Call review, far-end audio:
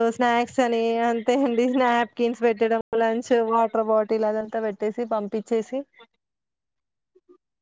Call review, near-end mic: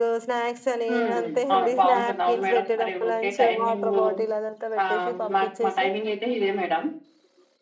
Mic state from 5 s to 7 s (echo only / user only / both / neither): both